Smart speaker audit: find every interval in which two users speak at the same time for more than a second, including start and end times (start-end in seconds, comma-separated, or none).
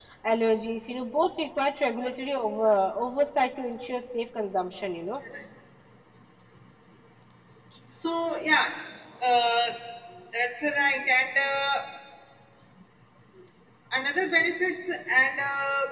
none